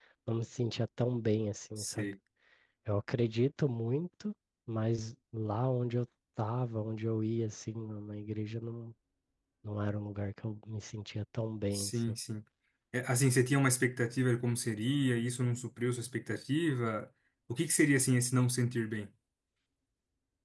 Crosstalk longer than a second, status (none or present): none